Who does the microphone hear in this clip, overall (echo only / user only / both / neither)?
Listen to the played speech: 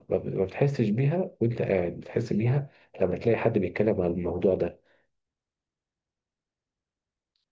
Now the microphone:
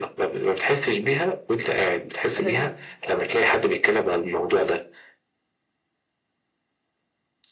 both